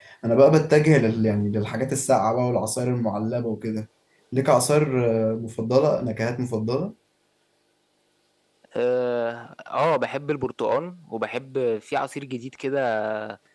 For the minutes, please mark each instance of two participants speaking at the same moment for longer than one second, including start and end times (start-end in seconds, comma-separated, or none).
none